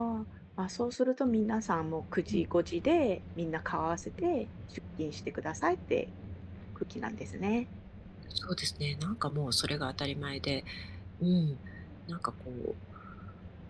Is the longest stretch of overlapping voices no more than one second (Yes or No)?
Yes